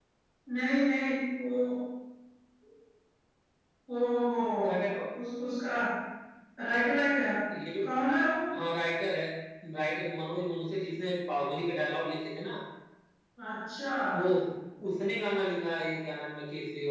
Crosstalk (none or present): none